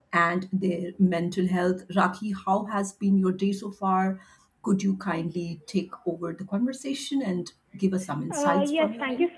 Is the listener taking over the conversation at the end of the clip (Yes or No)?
Yes